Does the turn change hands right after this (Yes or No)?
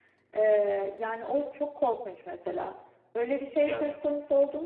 No